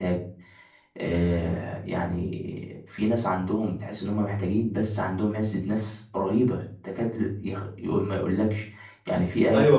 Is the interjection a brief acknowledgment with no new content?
No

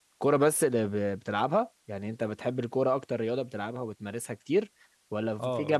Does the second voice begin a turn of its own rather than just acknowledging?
No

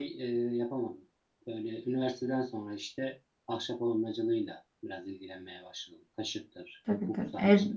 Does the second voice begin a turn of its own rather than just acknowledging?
Yes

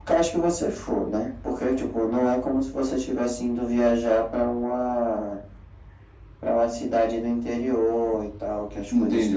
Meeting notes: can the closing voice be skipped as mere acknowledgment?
No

